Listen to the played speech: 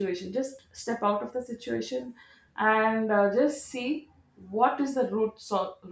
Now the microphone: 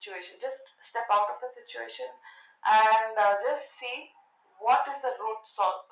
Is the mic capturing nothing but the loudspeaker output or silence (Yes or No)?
Yes